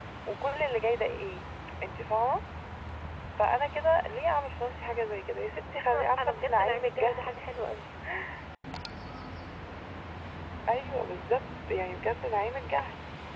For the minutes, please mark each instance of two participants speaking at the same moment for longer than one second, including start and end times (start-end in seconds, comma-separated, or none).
5.9-7.2